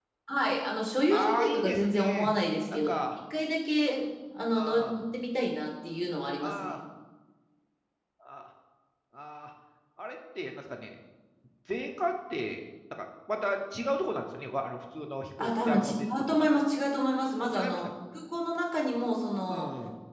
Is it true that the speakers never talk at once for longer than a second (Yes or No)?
No